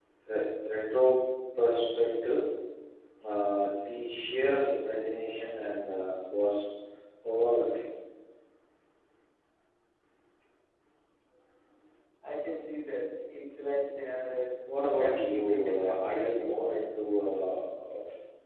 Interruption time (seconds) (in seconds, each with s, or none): 15.0 s